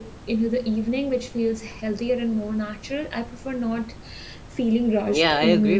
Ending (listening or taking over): taking over